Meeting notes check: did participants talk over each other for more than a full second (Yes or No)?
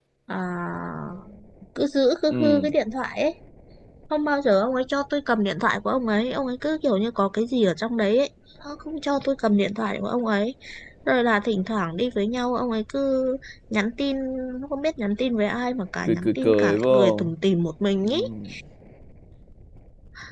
Yes